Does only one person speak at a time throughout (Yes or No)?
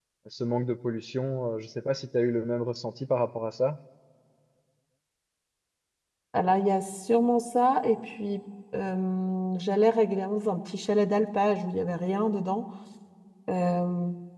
Yes